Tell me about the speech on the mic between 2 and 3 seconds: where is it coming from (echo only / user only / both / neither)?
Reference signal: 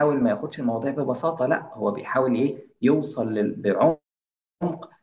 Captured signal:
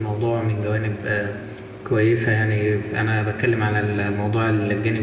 user only